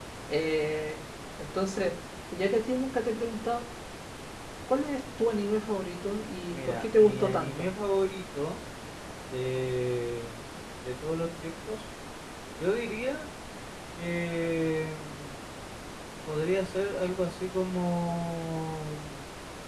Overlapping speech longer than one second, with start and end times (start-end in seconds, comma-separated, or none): 6.5-7.7